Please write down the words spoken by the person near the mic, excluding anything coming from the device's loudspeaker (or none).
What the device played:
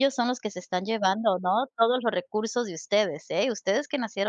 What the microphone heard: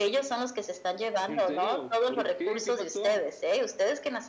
¿En serio?, ¿por qué?, ¿qué pasó?